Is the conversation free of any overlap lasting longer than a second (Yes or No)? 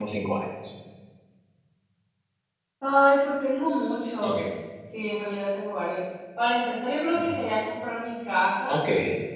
Yes